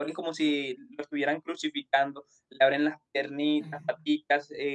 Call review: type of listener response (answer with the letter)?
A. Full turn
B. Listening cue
B